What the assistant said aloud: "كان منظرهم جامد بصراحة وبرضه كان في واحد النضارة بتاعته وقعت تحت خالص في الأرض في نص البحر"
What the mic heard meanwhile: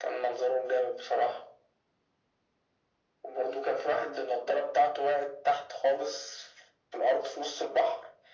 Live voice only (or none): none